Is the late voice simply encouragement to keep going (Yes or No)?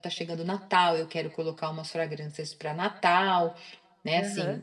Yes